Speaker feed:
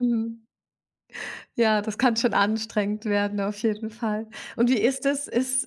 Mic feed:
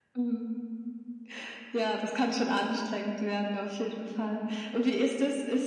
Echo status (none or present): present